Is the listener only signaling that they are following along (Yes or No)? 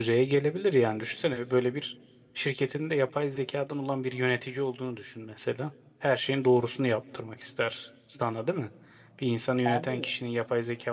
Yes